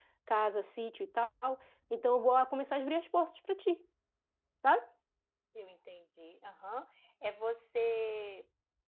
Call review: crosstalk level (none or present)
none